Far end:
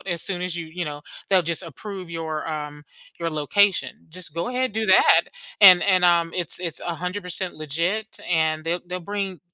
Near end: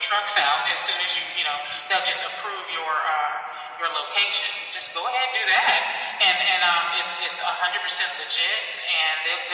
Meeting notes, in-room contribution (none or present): none